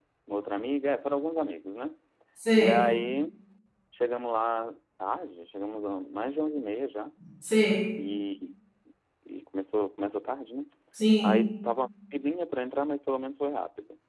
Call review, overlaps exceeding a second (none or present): none